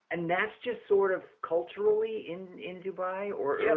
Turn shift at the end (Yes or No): Yes